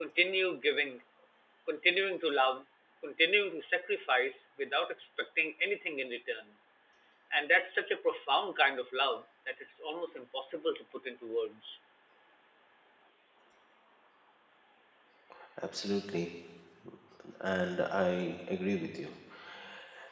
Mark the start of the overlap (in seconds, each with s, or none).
none